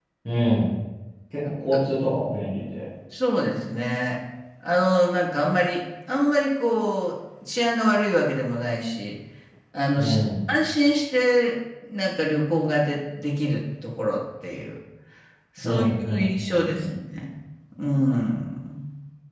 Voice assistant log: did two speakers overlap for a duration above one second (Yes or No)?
Yes